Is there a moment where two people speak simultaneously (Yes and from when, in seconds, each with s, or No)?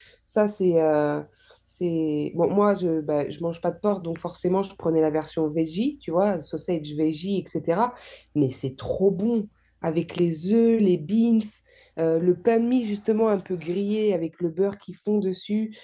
No